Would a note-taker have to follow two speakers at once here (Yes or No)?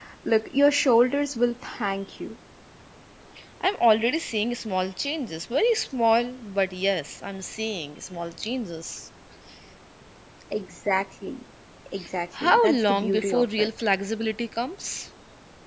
Yes